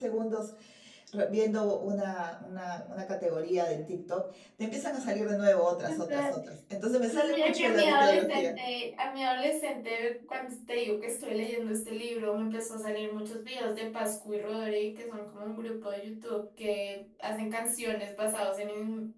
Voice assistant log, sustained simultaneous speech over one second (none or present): present